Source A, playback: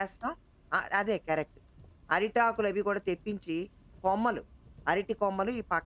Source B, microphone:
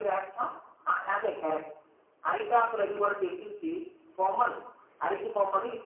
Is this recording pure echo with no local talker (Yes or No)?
Yes